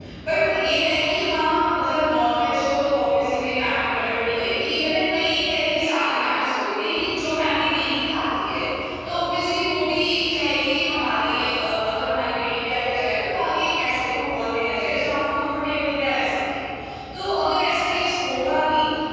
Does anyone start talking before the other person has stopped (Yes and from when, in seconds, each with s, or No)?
No